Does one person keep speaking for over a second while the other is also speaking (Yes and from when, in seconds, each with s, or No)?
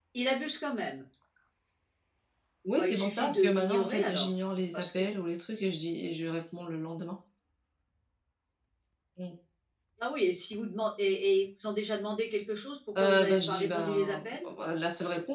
Yes, from 2.8 s